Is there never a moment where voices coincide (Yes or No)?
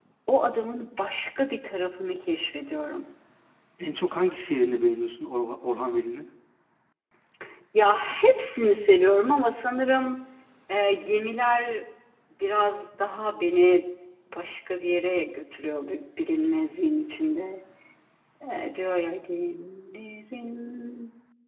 Yes